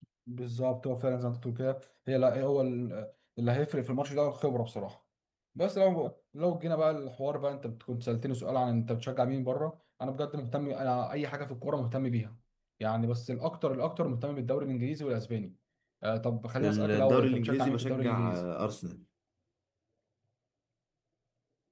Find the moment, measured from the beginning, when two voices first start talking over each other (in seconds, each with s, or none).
16.6 s